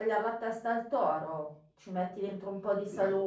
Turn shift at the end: No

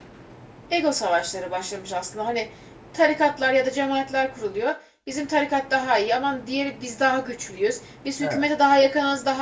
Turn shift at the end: No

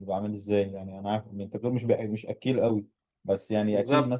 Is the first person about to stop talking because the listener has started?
No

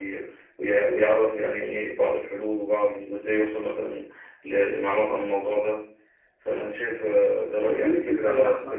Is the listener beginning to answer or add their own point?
Yes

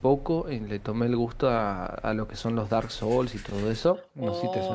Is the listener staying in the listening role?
No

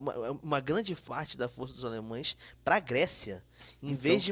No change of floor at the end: Yes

